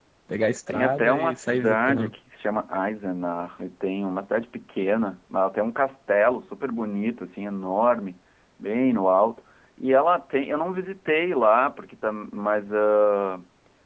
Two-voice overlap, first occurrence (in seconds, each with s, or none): 0.7 s